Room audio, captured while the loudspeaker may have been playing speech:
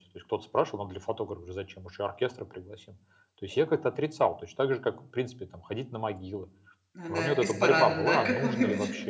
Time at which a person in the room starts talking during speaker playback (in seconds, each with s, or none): 6.9 s